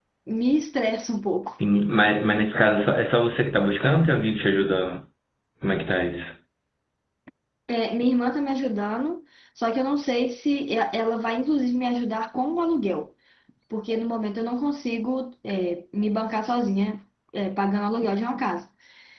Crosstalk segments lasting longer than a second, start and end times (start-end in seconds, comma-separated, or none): none